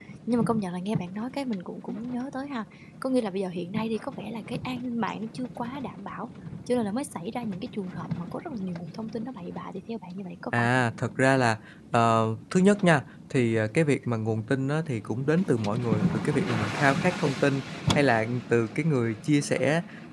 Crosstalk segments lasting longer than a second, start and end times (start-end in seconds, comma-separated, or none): none